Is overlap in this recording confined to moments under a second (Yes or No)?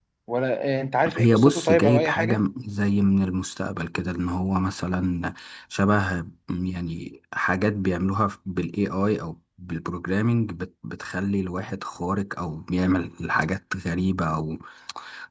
No